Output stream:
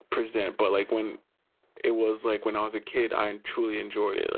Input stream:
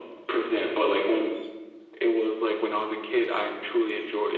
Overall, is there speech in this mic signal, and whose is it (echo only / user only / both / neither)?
echo only